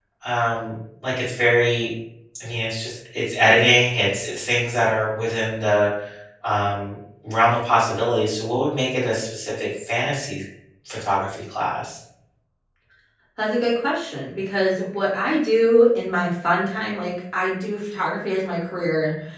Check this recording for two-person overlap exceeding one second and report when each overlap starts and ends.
none

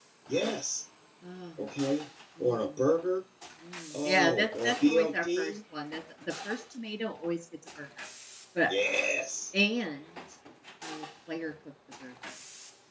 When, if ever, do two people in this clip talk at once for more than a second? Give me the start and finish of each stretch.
4.0-5.6

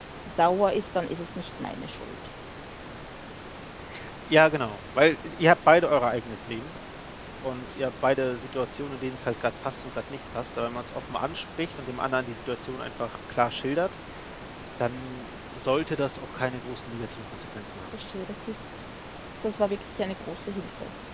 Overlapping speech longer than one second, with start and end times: none

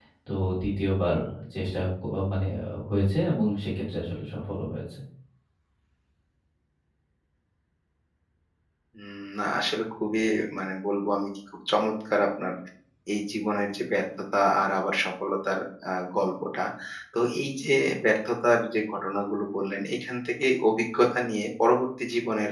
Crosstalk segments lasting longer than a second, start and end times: none

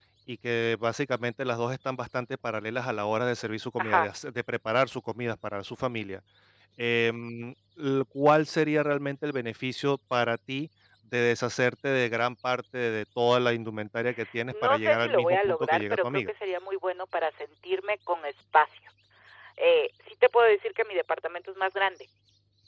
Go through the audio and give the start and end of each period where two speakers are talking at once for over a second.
14.5-16.2

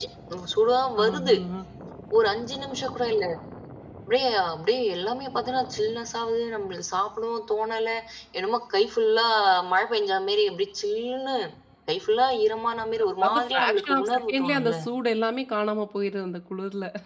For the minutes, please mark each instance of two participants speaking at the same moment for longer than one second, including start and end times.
13.2-14.8

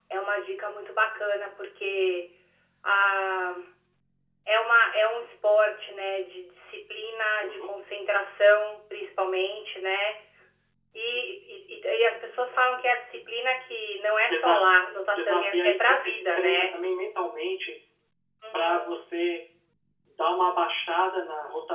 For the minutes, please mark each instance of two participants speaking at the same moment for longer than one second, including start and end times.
15.2-16.6

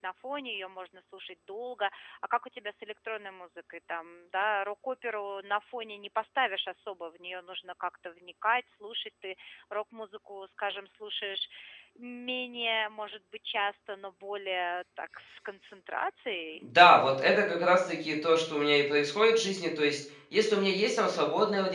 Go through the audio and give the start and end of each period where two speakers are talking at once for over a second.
none

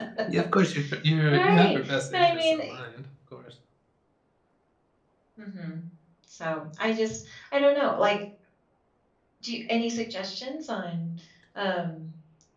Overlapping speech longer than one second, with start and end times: 1.3-2.6

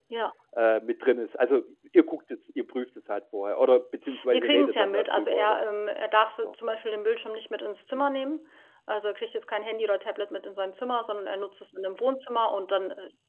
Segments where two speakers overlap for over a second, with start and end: 4.3-5.6

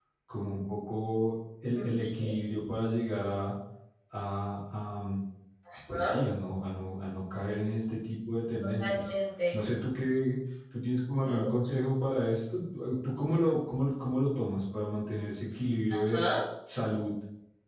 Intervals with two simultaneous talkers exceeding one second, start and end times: none

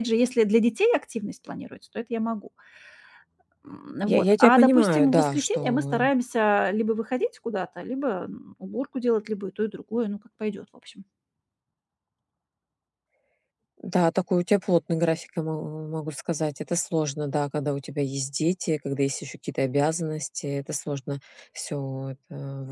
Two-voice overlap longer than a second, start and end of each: 4.1-6.1

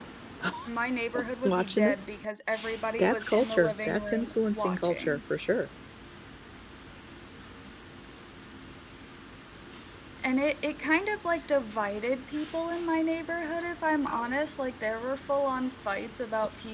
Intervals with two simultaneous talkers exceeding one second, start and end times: 3.0-5.2

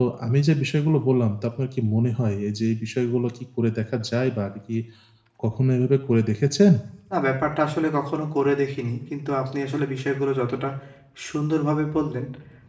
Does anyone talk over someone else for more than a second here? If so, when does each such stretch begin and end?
none

